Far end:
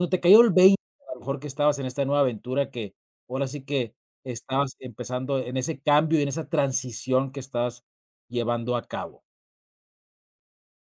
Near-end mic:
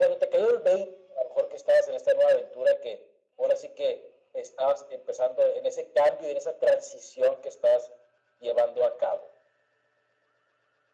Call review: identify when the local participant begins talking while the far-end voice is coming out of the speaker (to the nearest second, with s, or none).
none